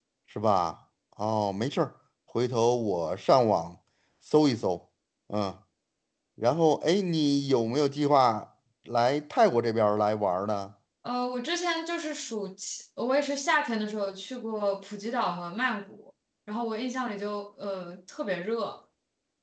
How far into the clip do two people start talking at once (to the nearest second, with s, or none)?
none